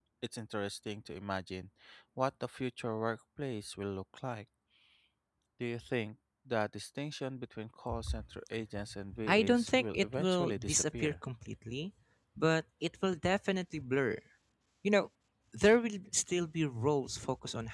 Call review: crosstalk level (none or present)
present